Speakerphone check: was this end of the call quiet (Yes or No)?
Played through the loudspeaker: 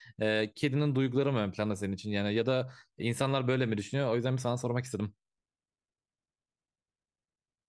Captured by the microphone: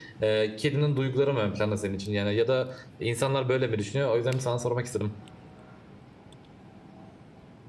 Yes